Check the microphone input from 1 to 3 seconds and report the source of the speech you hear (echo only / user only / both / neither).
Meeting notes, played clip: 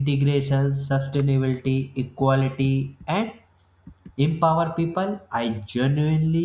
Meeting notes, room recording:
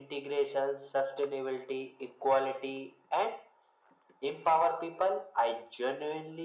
echo only